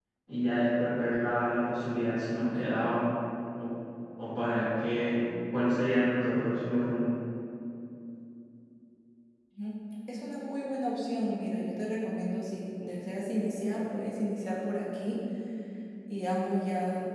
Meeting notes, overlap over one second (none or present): none